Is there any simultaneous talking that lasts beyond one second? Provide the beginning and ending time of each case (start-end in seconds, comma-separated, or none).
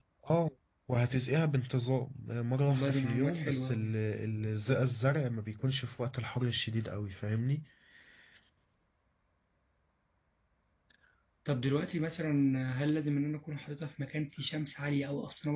2.7-3.9